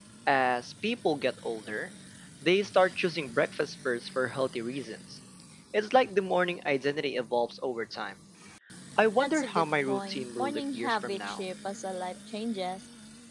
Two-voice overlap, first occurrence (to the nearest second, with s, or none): 9 s